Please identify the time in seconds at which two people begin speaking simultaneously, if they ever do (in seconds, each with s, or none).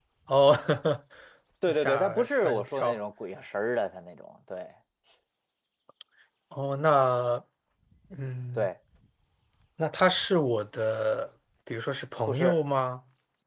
1.7 s